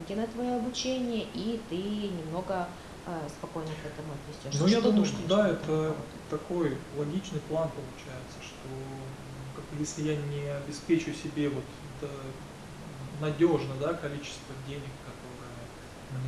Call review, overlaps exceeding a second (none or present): present